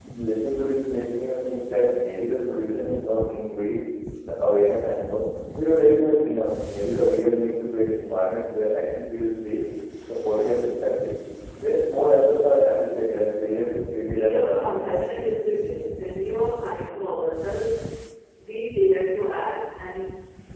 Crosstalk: present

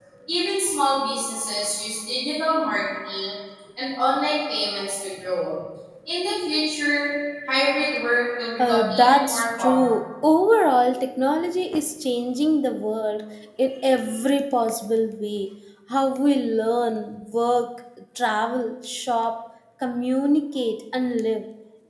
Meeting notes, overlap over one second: present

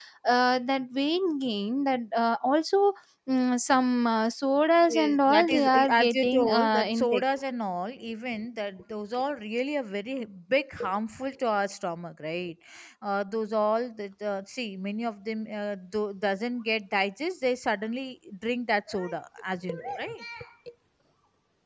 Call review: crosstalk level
present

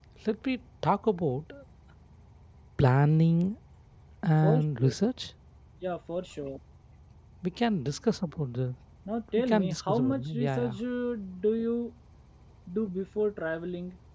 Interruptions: present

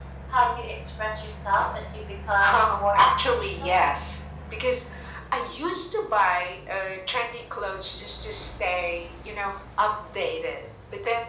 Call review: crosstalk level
present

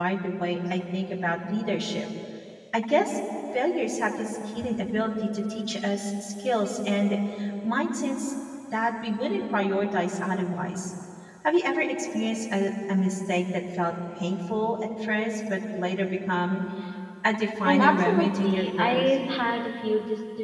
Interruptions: present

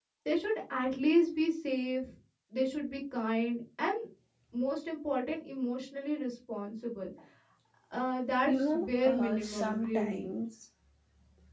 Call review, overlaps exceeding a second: present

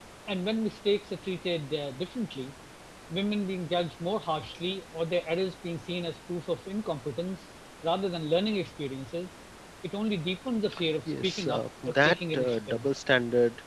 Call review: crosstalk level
present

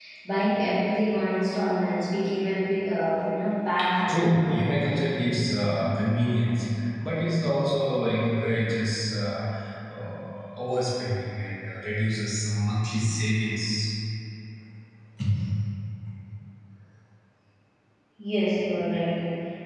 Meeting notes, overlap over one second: none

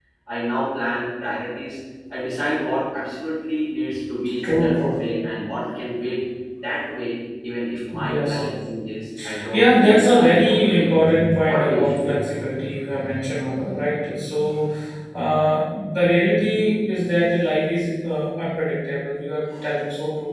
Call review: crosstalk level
present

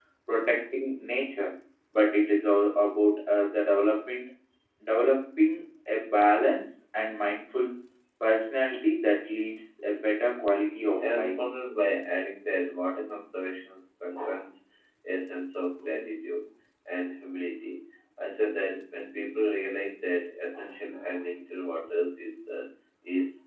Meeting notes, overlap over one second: none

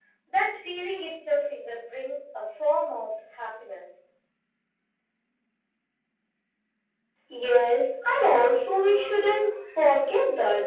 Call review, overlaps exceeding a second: none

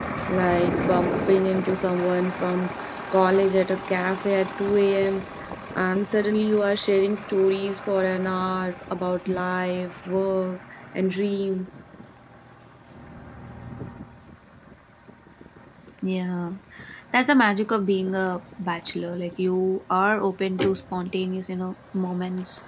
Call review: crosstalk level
none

